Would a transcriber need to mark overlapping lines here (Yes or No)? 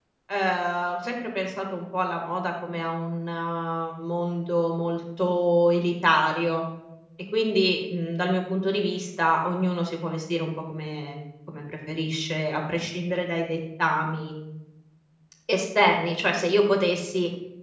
No